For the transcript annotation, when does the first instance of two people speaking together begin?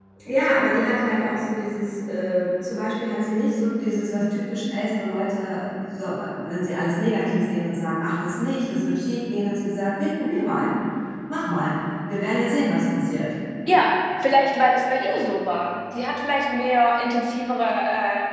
none

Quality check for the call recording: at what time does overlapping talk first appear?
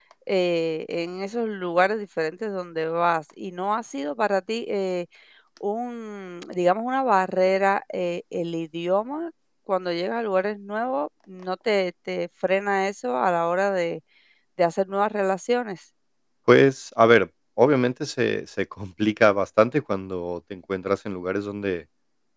none

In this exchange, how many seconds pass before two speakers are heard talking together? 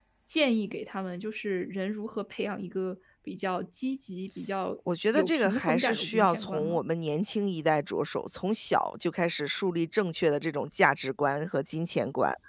5.1 s

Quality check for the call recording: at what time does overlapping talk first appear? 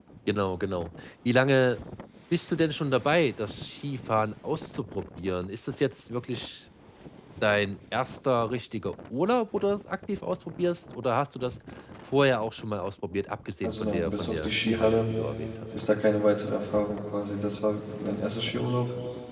13.6 s

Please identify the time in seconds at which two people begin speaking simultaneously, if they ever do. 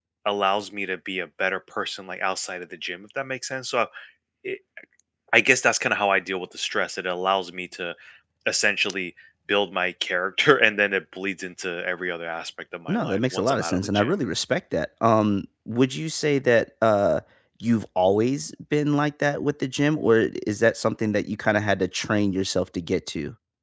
12.9 s

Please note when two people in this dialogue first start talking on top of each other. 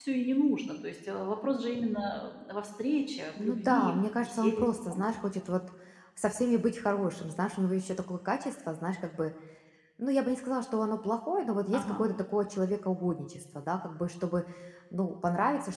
3.4 s

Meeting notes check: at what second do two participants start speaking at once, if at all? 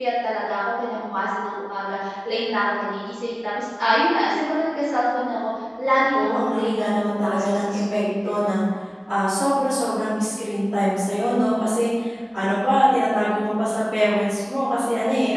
6.1 s

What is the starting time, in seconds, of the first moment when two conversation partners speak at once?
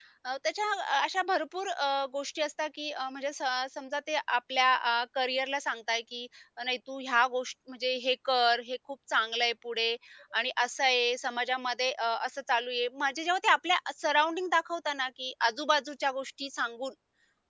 none

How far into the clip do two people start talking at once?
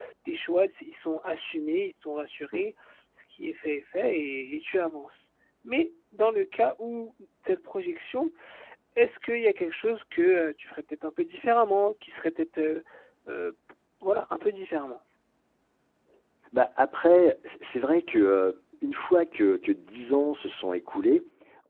none

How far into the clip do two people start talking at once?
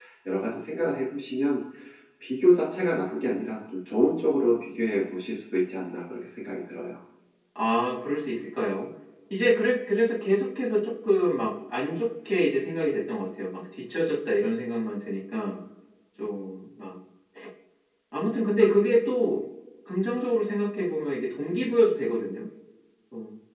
none

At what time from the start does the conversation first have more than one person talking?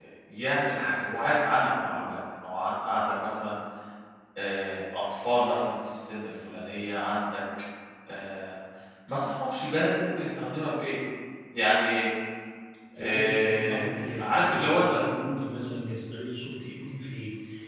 13.0 s

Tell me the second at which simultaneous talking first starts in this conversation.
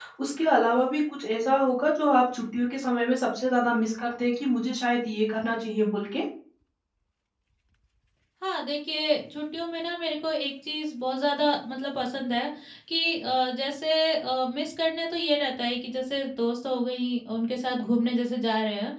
none

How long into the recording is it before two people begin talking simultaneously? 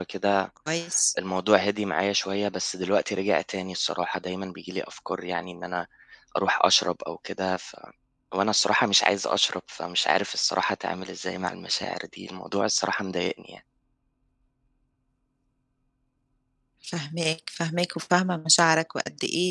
none

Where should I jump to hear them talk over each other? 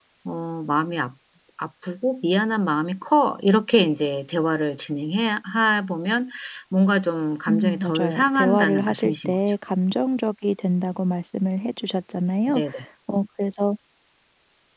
7.5 s

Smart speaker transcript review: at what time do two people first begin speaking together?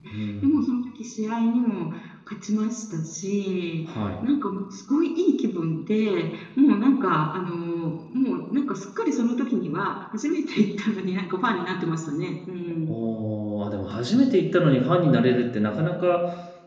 none

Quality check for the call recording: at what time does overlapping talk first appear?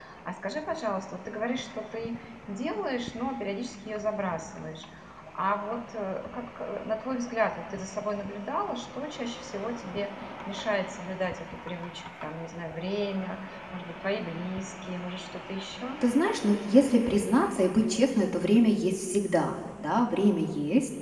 none

